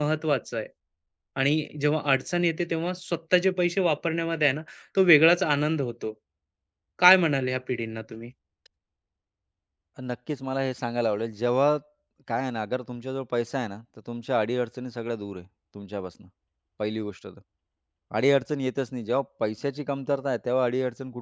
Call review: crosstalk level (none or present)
none